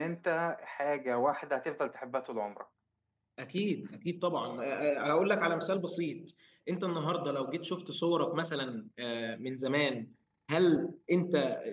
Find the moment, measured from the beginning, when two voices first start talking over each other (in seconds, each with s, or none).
none